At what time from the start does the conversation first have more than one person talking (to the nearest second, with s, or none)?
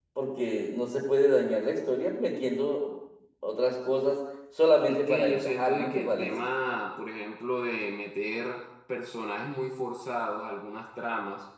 5 s